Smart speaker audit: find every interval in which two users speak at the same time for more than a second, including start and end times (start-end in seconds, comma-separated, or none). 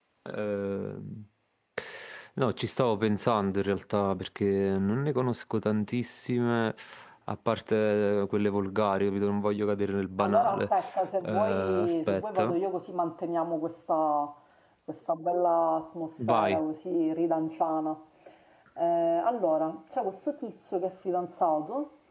11.2-12.5